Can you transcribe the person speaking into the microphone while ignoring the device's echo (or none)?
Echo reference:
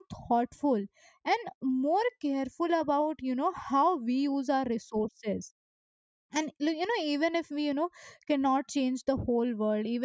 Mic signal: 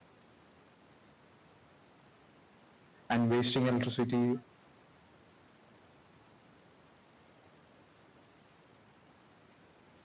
and wasting electricity,